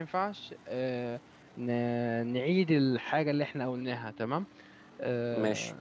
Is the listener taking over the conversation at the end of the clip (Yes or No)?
No